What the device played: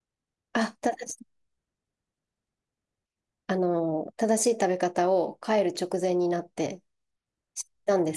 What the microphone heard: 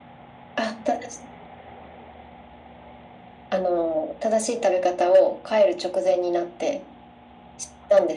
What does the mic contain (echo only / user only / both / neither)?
echo only